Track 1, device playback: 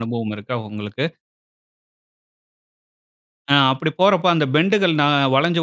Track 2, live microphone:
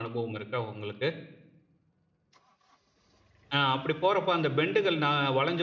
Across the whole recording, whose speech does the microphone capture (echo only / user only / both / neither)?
echo only